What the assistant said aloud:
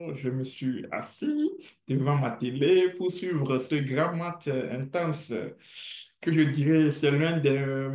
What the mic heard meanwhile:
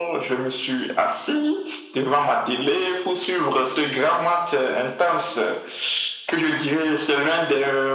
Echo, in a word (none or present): present